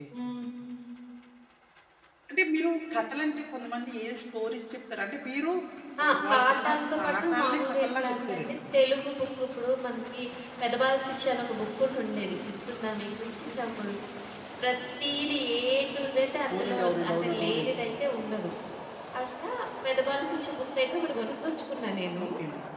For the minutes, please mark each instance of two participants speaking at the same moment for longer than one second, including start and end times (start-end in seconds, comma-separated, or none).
6.0-8.5, 16.5-17.7